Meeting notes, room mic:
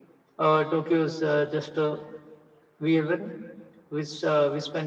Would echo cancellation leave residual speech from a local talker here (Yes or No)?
No